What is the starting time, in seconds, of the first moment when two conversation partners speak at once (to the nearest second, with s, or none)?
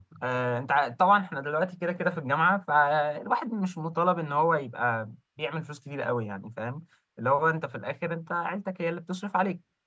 none